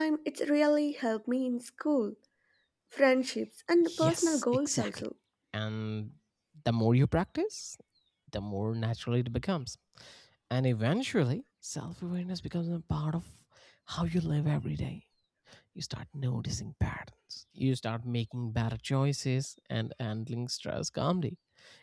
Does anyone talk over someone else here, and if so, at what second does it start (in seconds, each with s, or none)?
3.8 s